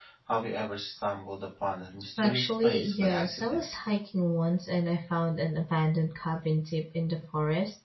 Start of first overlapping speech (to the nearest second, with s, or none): 2 s